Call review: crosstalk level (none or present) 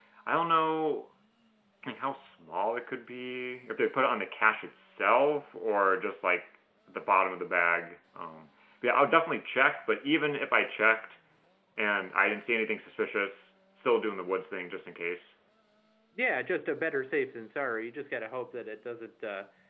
none